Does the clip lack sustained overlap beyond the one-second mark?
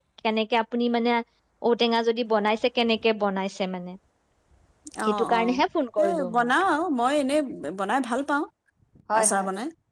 Yes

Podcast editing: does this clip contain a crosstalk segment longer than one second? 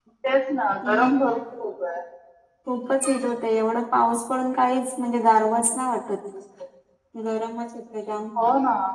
No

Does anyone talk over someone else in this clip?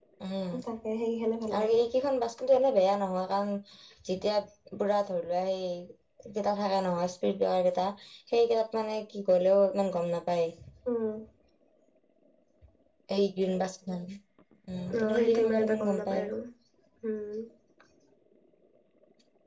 Yes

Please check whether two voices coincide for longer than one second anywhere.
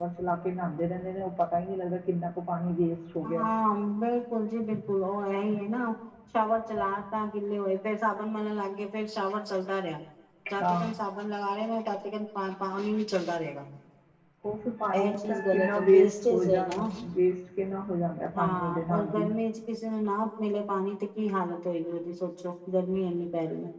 Yes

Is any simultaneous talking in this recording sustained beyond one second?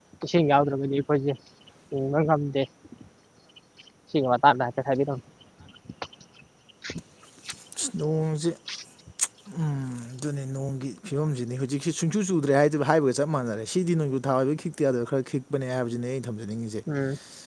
No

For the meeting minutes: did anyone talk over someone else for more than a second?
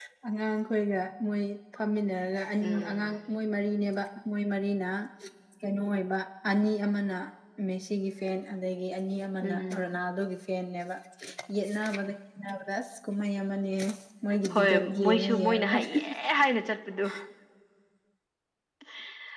Yes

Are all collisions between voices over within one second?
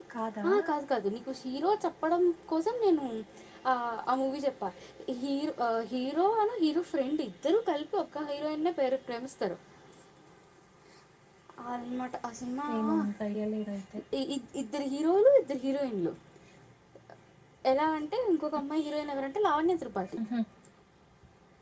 Yes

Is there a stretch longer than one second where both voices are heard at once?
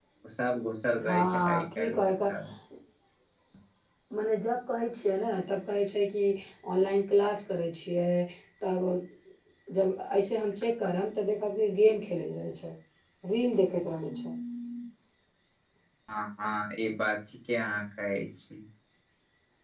Yes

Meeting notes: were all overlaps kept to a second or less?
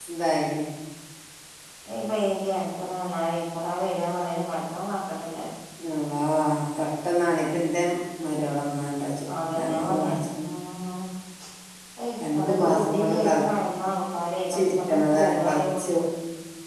No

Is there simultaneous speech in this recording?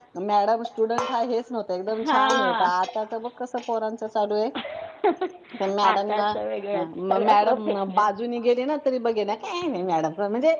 Yes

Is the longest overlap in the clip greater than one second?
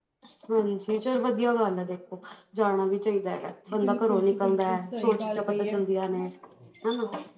Yes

